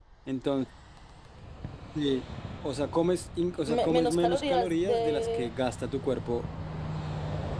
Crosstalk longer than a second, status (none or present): present